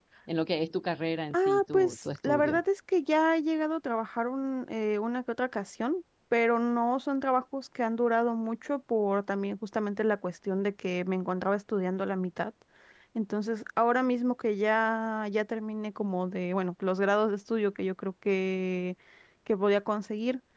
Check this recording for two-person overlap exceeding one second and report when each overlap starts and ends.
1.3-2.6

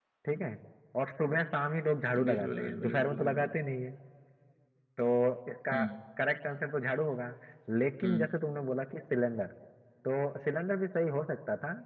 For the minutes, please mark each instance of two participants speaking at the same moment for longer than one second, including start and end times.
2.3-3.5

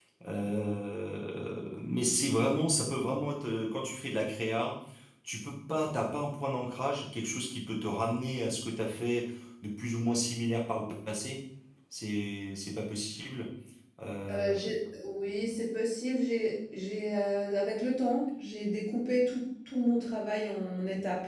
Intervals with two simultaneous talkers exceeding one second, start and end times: none

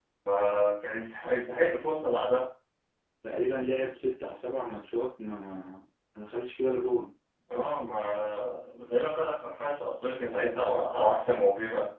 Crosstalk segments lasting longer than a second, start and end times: none

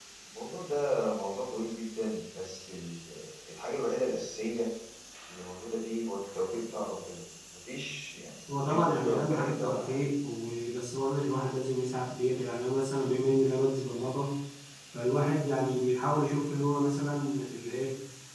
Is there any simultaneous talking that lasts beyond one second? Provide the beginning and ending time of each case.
8.6-10.0

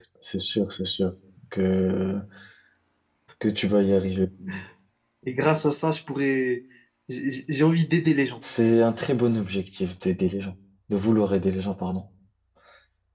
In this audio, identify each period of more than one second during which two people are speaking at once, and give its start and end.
none

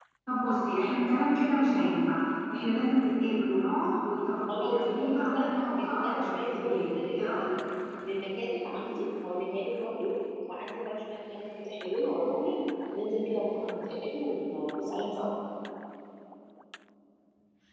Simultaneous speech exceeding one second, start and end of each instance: 4.5-7.5

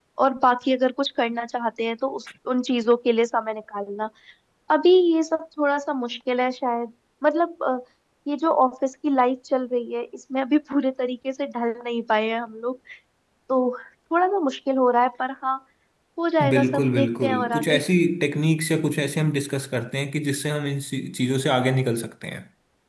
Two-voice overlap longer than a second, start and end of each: 16.5-17.8

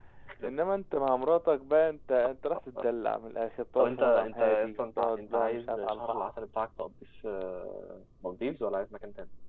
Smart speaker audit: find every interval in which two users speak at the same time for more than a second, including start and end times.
3.8-6.3

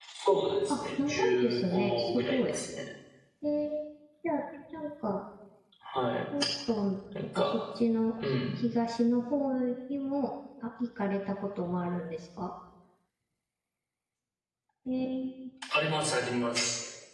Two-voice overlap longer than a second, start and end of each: 0.7-2.5

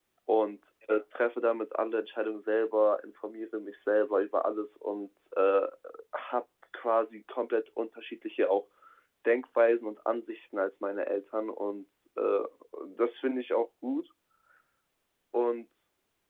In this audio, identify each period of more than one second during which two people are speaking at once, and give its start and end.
none

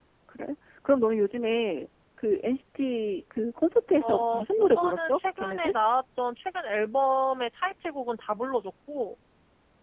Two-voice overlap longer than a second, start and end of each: 4.0-5.7

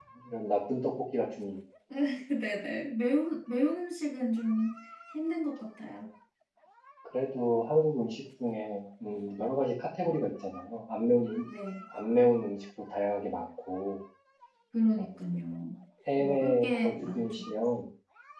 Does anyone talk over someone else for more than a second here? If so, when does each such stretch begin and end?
16.2-17.4

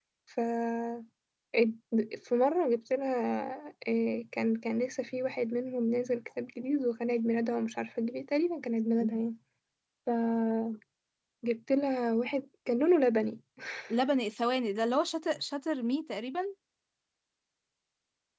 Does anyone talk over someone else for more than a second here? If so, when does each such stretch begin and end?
none

